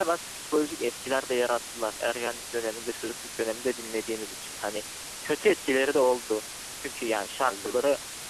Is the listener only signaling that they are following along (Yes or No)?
Yes